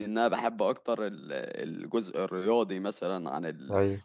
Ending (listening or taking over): listening